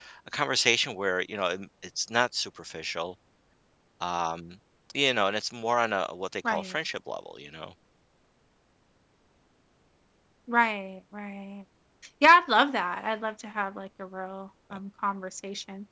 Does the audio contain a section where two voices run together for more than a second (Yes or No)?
No